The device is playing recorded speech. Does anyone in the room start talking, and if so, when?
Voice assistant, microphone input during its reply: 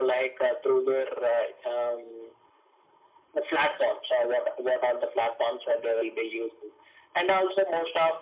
none

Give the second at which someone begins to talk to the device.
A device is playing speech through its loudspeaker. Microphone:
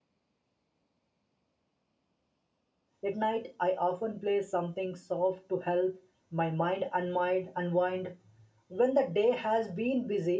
3.0 s

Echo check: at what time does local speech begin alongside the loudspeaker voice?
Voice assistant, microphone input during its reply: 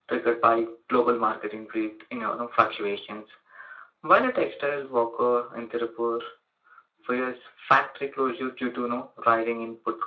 none

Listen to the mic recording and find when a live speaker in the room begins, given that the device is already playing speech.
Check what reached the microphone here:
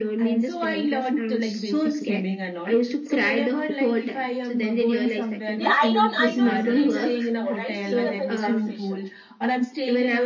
5.6 s

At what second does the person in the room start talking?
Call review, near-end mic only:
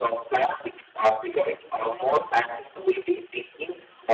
none

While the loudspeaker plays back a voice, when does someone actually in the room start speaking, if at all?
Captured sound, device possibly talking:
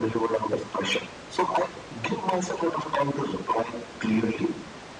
none

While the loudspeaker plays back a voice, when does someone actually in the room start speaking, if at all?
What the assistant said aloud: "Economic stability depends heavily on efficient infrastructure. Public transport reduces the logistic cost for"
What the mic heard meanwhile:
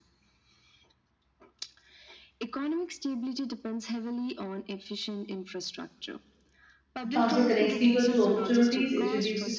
7.1 s

